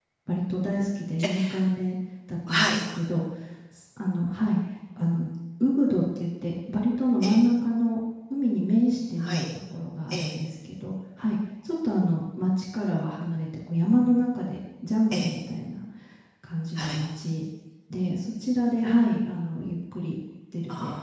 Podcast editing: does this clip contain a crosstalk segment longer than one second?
No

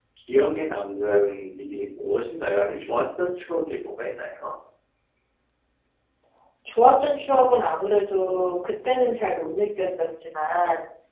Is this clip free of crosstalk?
Yes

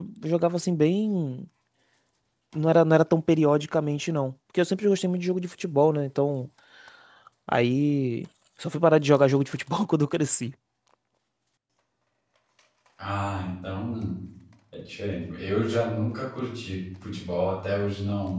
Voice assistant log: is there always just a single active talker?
Yes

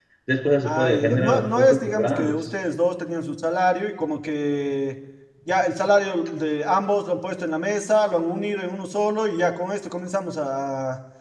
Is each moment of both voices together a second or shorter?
No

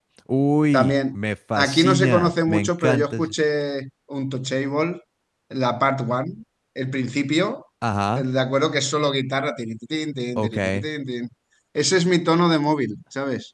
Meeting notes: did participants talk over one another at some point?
Yes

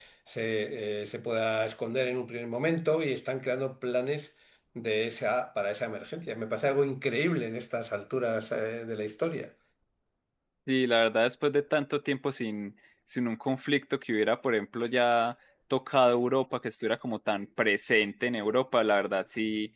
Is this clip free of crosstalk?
Yes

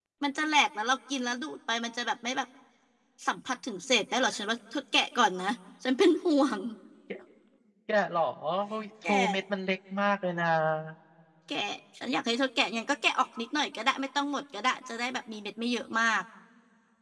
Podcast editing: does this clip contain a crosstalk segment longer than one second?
No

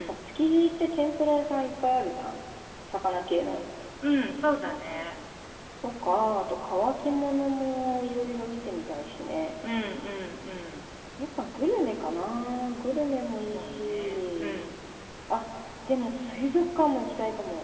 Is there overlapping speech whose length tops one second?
Yes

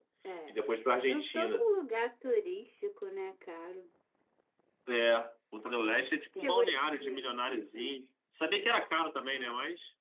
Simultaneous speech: Yes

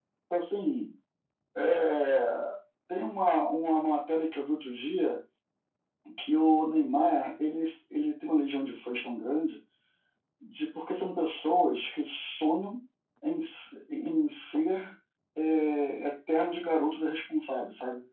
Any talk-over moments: No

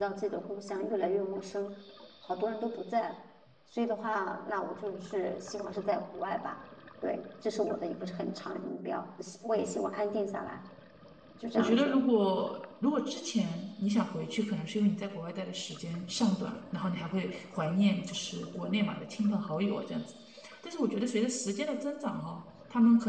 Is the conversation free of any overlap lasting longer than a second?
Yes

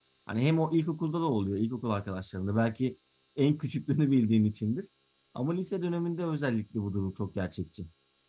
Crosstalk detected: No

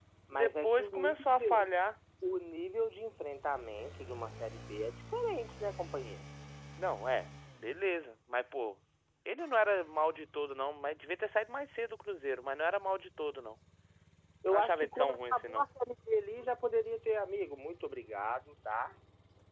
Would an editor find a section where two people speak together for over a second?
Yes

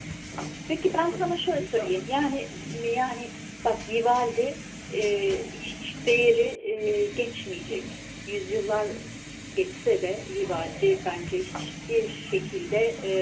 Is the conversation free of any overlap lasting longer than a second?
No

